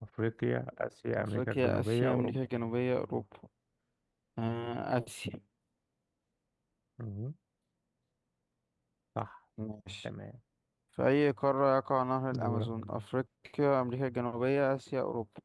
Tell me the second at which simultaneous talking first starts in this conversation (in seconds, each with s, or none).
1.2 s